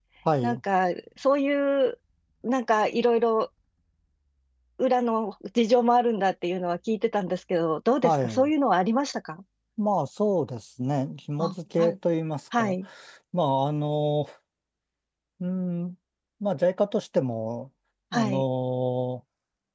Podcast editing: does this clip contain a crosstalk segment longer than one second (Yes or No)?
No